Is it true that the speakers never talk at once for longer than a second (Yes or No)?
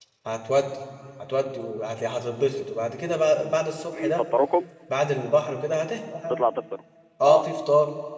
Yes